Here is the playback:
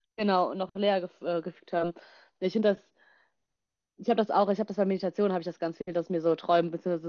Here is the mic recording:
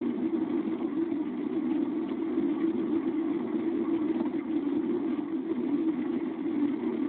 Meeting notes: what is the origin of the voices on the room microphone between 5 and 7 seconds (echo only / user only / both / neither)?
neither